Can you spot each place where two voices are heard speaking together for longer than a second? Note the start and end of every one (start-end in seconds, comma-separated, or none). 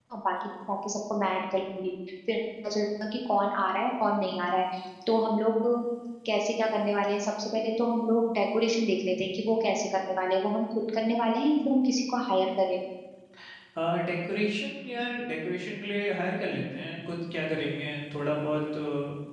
none